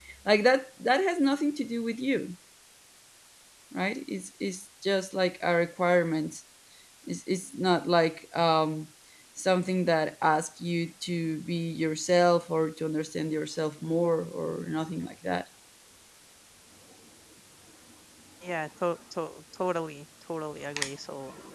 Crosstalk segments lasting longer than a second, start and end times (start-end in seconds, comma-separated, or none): none